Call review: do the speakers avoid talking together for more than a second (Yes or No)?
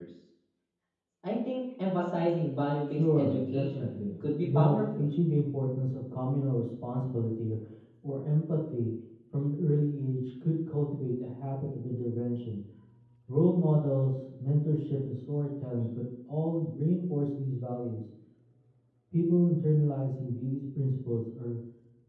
No